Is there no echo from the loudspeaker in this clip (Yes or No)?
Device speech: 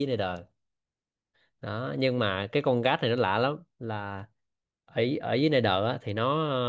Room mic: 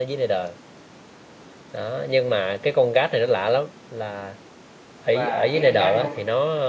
No